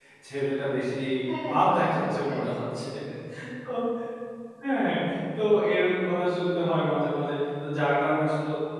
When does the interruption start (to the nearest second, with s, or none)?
2 s